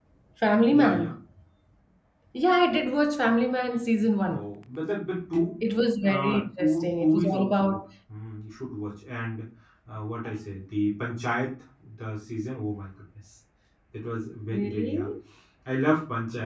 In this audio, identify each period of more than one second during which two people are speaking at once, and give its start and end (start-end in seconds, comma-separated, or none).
6.1-7.8